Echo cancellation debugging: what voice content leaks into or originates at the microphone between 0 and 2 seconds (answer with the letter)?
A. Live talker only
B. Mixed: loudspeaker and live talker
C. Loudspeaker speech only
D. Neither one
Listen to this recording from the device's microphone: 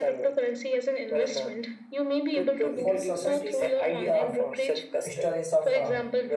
C